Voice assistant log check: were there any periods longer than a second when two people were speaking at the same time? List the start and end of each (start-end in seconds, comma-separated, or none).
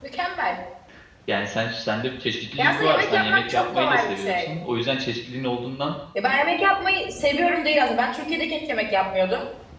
2.6-4.5